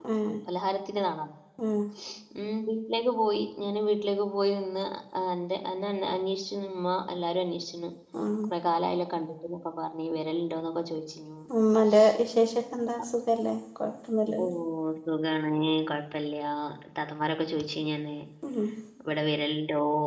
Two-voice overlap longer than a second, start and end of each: none

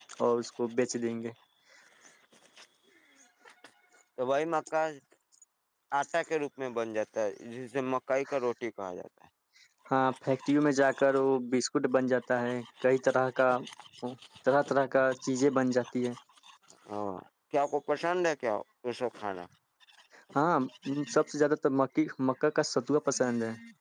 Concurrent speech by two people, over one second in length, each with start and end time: none

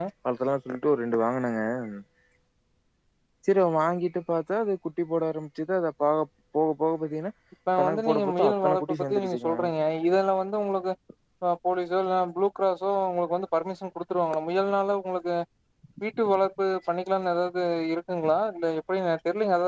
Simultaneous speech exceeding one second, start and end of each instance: 7.8-9.5

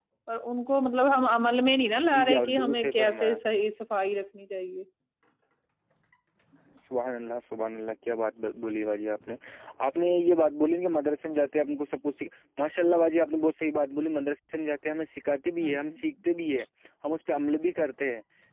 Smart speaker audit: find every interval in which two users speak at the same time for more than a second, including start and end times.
2.1-3.3

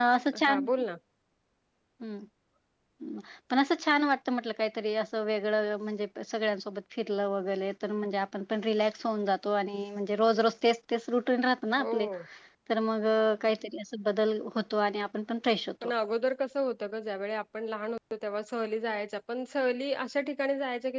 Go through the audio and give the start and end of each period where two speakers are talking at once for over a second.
none

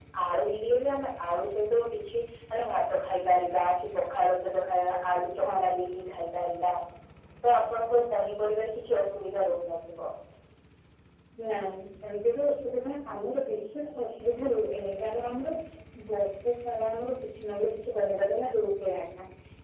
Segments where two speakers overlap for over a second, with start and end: none

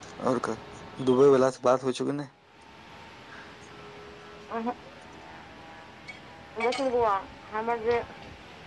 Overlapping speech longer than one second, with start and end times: none

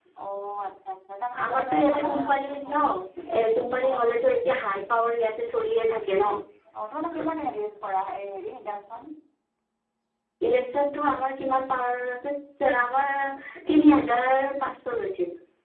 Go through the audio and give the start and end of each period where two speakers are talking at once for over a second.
1.4-2.7

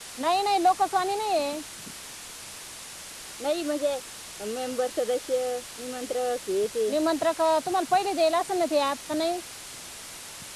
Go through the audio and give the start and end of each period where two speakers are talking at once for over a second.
none

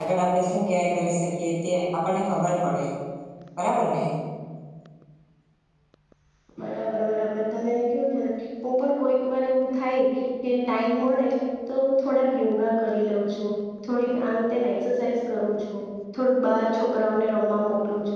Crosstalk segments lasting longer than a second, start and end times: none

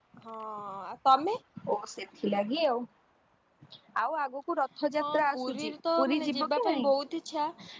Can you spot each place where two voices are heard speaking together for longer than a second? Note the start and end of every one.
5.0-6.9

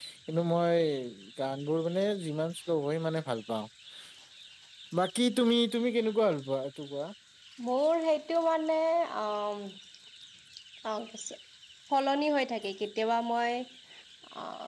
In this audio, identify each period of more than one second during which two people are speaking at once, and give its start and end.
none

